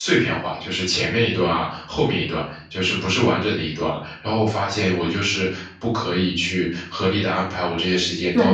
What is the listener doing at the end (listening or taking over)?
taking over